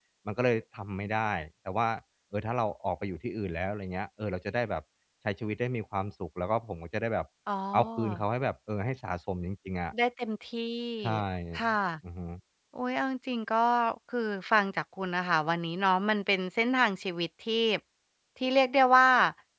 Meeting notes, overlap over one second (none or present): none